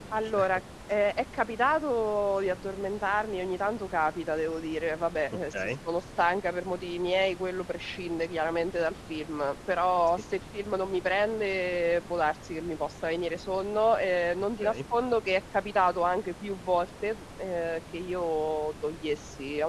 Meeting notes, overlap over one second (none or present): none